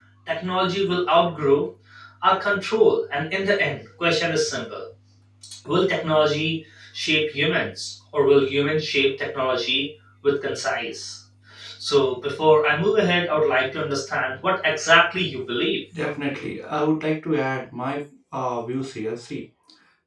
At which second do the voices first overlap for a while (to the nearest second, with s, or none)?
none